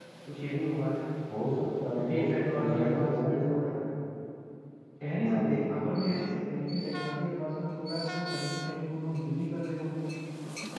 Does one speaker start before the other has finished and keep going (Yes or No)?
Yes